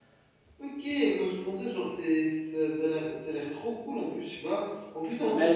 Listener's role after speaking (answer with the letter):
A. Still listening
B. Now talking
B